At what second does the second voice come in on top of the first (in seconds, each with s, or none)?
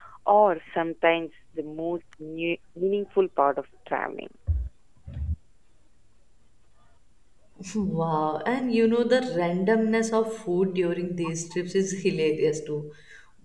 none